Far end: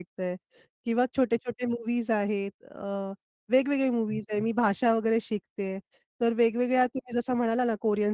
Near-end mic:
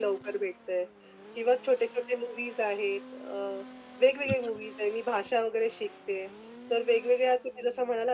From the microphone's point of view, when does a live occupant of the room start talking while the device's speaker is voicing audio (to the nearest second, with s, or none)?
4 s